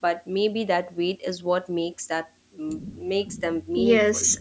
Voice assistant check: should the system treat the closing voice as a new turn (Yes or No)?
Yes